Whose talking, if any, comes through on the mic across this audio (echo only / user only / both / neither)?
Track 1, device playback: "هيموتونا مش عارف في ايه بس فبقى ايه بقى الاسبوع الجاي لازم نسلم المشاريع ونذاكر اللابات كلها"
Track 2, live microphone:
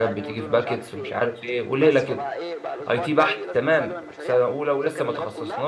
both